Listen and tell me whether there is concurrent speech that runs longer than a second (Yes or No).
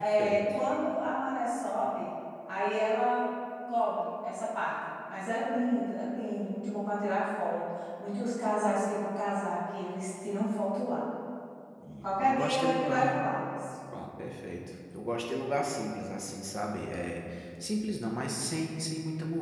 Yes